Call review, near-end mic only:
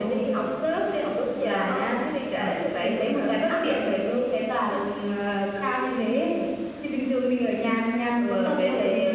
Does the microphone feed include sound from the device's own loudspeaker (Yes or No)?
Yes